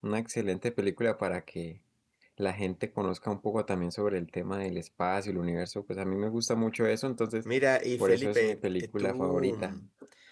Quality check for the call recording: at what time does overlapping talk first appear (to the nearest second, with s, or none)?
8 s